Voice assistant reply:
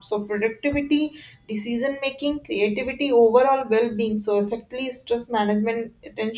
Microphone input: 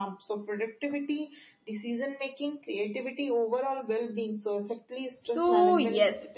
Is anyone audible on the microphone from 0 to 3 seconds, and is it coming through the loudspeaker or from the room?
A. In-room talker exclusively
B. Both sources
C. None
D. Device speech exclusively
D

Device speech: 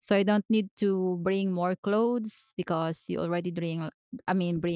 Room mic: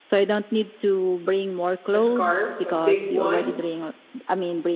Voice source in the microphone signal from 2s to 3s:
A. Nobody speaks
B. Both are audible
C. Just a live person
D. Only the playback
B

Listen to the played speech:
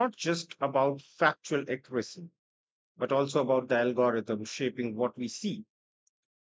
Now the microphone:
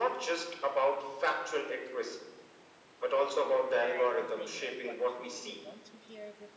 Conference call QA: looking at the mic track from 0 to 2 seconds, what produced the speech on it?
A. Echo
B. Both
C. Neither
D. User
A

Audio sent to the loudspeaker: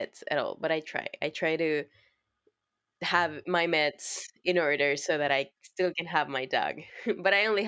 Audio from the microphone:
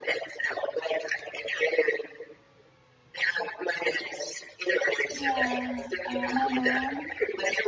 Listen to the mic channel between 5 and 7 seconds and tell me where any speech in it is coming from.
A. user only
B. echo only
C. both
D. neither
C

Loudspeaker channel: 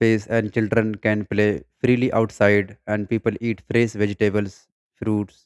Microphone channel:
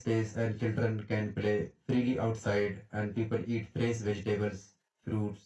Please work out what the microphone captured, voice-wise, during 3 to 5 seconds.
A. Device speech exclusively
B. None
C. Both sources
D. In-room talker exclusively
A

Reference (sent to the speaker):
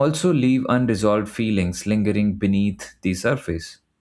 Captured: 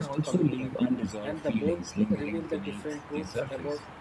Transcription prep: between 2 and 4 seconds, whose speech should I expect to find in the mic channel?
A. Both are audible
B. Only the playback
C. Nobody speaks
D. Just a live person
A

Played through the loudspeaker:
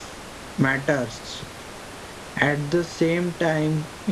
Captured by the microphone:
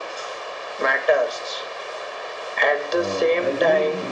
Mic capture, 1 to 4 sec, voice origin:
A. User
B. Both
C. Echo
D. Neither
B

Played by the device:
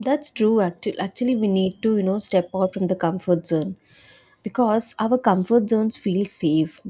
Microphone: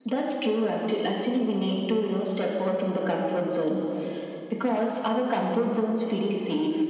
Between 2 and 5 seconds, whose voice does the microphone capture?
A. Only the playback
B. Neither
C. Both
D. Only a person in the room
A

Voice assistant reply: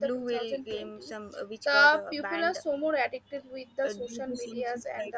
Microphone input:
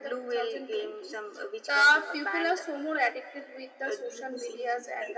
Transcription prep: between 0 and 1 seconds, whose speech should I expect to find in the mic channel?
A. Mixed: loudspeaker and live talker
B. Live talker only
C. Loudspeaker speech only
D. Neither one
C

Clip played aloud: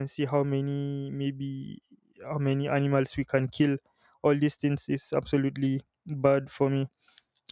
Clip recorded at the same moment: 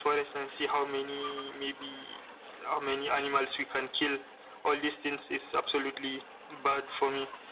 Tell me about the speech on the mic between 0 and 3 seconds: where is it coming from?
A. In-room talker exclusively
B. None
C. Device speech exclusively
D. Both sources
C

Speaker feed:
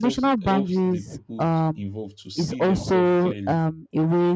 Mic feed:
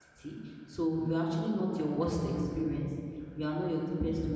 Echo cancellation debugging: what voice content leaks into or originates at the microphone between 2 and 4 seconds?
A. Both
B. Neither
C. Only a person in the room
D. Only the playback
C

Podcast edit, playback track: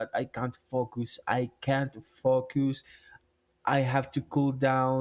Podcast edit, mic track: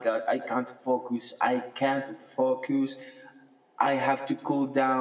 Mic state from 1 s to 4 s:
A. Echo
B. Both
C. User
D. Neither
A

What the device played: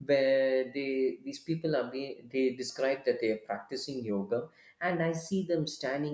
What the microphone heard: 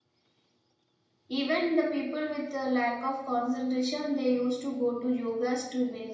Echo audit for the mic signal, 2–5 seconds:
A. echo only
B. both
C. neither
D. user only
D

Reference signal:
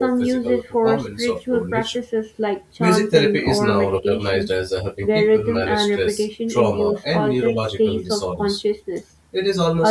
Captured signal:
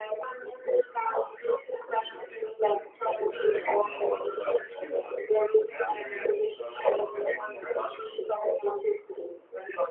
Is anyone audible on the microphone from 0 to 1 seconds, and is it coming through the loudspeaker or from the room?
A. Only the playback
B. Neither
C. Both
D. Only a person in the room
A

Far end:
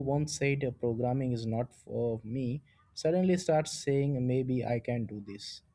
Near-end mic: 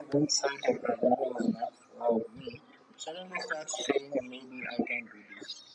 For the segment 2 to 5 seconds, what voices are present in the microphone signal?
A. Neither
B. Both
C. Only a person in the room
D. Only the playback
D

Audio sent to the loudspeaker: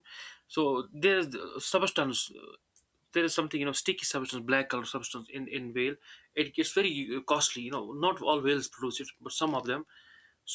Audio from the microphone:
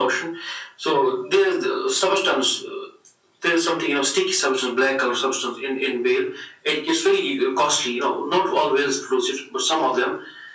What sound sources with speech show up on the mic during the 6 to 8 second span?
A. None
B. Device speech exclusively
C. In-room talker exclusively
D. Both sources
B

